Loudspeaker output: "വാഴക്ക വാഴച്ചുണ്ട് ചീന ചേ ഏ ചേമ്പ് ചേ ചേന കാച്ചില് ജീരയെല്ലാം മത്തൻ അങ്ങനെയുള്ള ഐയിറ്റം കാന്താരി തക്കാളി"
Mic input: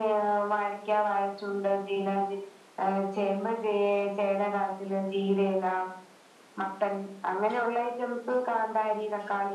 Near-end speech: none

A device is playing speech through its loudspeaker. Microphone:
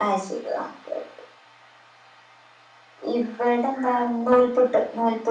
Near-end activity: none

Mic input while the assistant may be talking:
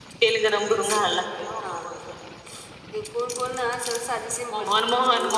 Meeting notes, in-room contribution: none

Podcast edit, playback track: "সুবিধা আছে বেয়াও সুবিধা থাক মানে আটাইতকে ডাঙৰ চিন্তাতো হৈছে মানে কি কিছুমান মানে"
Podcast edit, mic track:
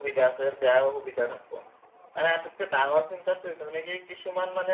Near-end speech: none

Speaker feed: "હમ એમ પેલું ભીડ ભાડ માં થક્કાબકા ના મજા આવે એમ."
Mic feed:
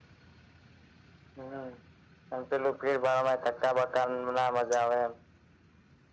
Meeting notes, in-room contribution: none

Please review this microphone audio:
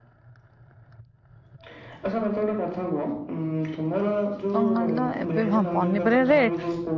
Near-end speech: present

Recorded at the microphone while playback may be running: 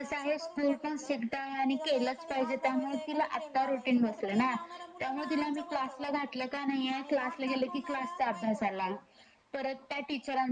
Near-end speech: present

